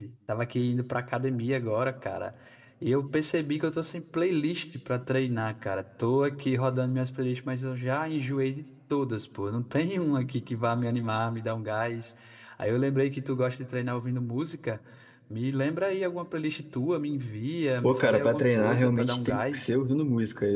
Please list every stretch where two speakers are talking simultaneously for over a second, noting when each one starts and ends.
17.8-19.7

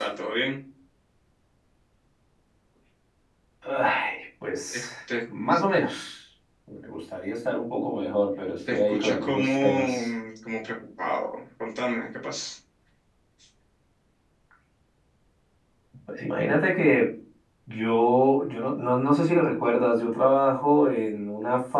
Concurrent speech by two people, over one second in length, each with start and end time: 8.7-10.1

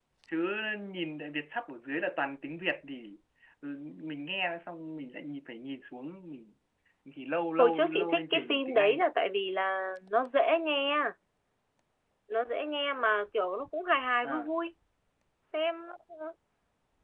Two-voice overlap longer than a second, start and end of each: 7.6-9.0

